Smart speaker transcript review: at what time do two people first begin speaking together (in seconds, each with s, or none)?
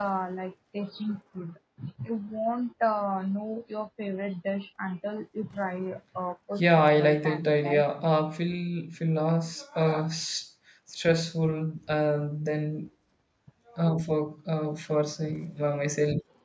6.6 s